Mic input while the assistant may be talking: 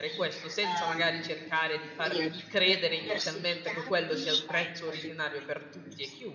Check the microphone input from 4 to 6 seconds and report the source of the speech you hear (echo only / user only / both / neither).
both